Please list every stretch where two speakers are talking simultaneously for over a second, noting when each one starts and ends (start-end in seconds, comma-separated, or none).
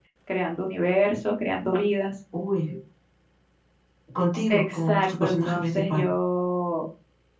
4.5-6.1